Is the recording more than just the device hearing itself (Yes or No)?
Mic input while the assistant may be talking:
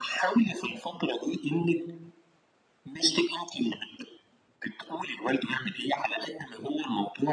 No